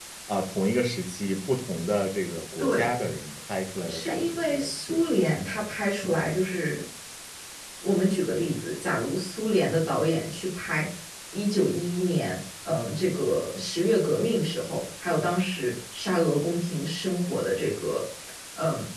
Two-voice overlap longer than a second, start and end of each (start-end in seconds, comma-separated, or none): 3.9-5.3